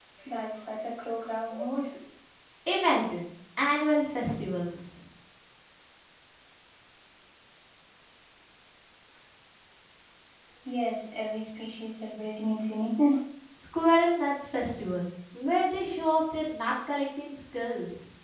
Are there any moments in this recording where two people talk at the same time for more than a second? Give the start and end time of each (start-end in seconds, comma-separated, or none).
none